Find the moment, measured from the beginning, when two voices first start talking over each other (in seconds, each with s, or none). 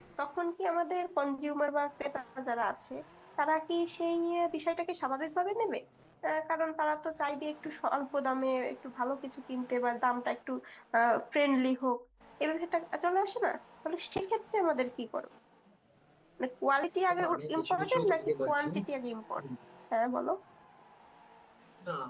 17.1 s